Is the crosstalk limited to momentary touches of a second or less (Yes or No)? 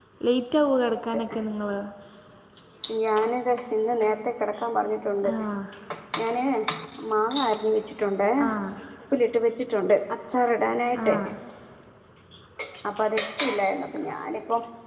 Yes